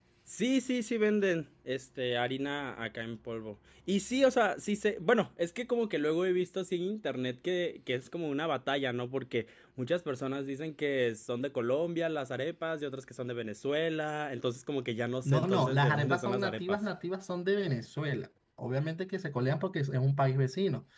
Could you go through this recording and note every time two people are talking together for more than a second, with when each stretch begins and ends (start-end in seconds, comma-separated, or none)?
15.2-16.8